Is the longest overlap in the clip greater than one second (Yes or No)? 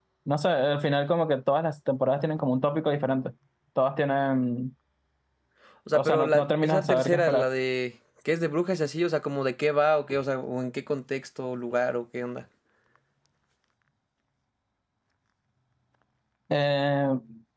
Yes